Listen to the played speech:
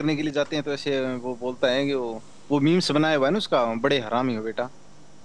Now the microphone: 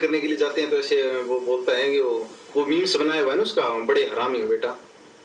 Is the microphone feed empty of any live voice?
Yes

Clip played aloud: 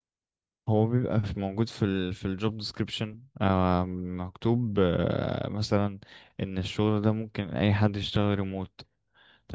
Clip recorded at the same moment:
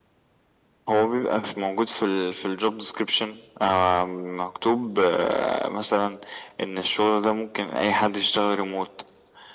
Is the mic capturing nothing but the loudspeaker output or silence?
Yes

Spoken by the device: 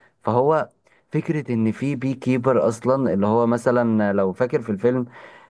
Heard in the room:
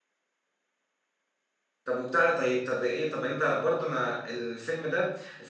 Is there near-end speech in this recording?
Yes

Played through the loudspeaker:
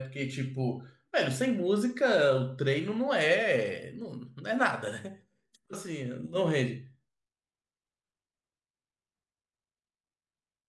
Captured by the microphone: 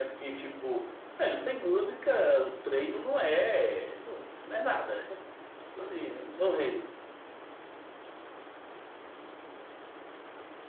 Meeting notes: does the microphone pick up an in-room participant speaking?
No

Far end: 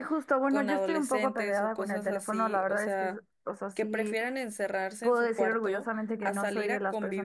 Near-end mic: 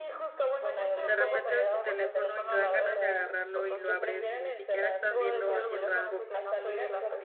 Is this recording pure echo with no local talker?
No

